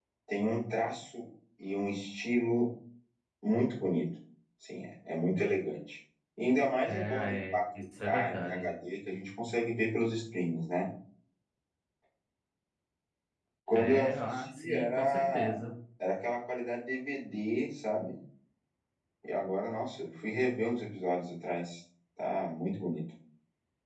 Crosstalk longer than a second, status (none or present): present